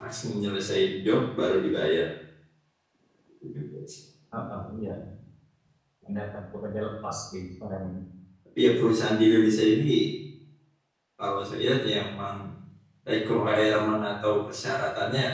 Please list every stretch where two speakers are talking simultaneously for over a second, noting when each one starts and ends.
none

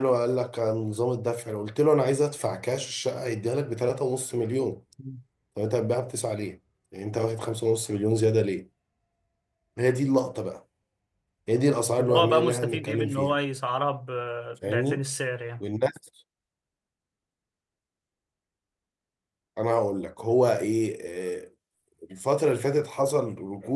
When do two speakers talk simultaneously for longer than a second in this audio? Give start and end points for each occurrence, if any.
12.0-13.3

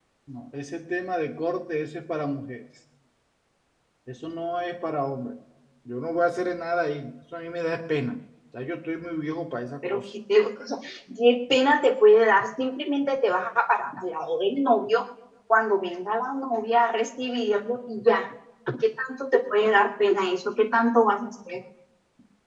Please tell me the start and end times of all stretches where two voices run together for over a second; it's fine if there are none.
none

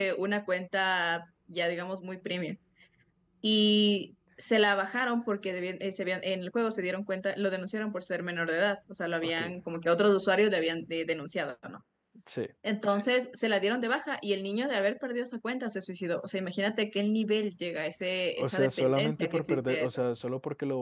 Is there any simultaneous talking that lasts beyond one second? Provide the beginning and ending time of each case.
18.4-20.0

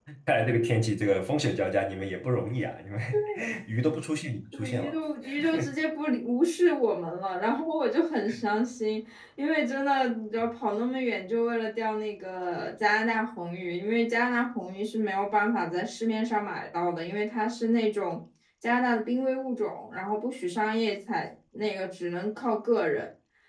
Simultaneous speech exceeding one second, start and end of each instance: none

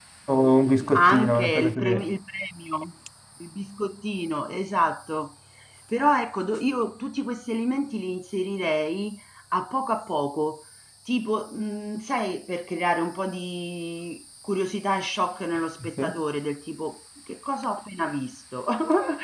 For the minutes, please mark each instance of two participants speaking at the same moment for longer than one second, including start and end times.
0.8-2.1

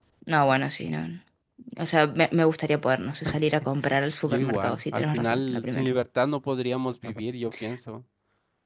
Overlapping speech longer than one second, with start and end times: 4.2-5.9

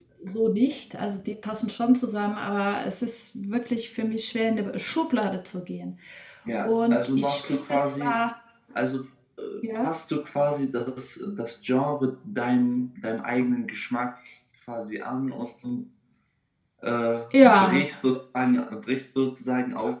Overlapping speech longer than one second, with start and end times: 6.6-8.1

